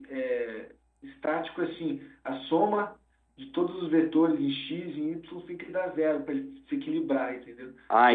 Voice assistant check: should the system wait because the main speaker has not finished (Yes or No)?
No